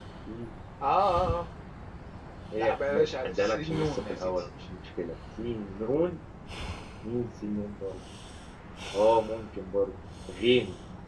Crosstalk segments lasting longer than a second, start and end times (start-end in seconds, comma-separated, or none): 2.6-4.5